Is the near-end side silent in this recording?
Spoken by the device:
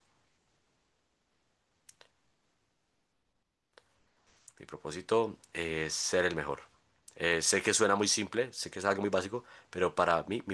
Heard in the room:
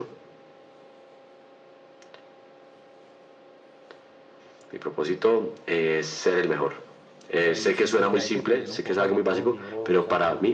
No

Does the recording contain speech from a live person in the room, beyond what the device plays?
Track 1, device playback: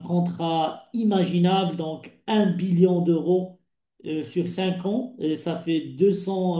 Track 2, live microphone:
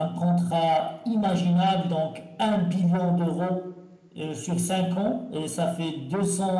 No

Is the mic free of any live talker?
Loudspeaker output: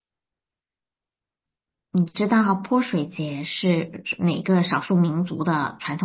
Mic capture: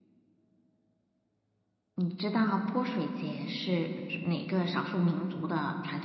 Yes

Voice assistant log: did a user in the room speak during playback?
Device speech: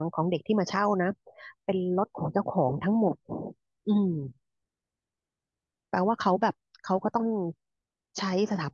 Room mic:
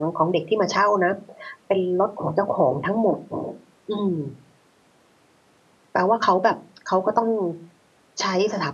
No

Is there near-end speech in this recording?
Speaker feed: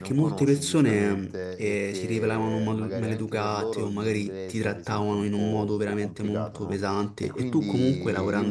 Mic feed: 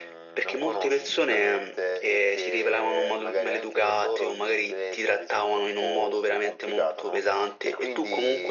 No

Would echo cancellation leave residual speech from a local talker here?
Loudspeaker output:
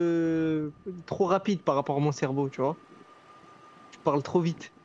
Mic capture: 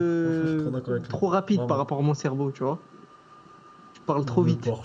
Yes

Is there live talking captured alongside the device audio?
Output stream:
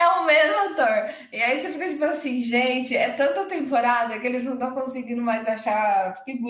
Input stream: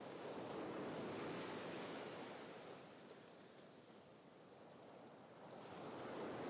No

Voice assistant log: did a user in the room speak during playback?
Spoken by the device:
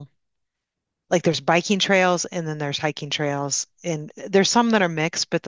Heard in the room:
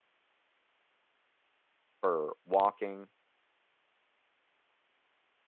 Yes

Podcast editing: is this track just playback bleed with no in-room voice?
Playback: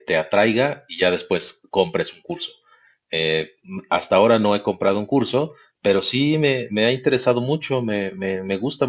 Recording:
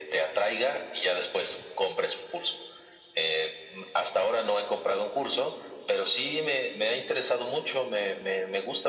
Yes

